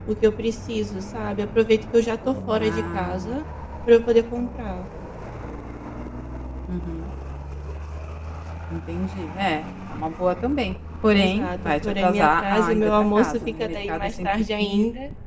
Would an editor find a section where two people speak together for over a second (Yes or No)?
Yes